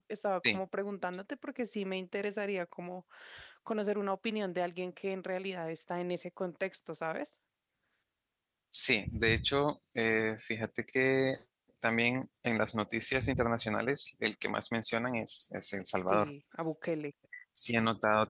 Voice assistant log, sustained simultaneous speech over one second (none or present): none